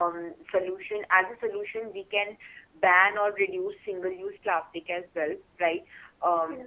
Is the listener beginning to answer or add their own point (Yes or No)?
No